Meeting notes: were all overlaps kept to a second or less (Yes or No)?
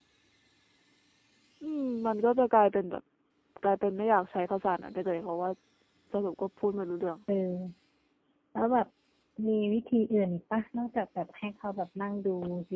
Yes